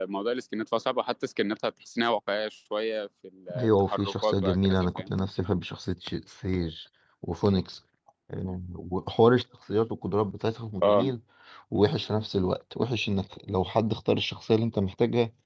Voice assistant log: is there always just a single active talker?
No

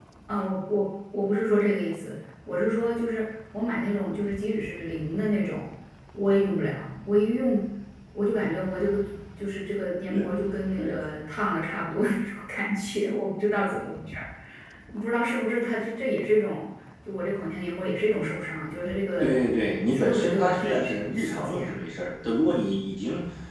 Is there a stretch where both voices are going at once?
Yes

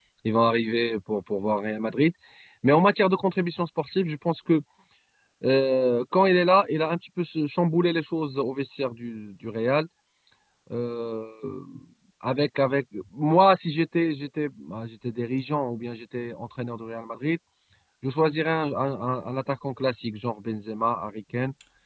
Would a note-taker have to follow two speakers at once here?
No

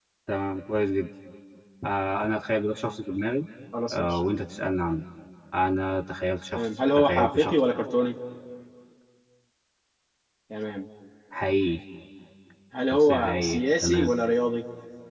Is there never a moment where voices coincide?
No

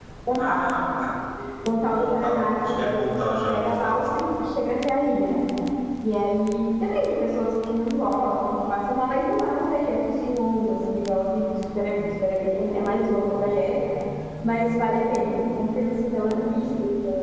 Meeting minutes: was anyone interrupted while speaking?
Yes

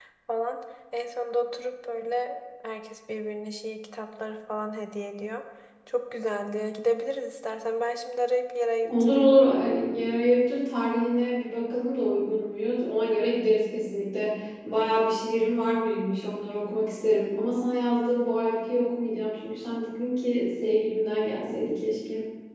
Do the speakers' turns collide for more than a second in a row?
No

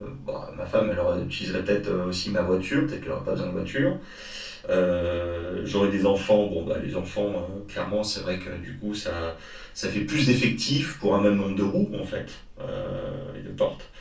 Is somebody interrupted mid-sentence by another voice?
No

